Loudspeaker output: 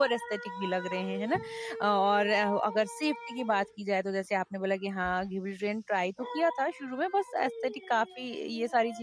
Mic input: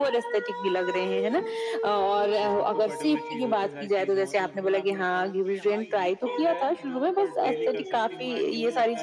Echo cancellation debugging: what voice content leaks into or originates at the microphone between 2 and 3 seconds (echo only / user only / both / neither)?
both